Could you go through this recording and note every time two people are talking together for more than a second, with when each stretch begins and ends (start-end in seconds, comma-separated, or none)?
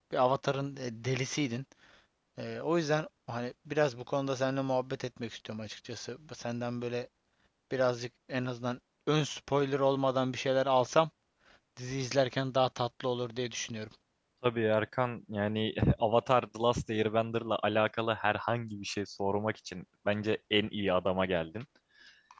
none